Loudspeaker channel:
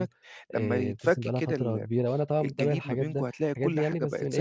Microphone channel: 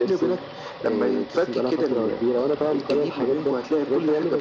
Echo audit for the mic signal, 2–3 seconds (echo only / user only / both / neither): echo only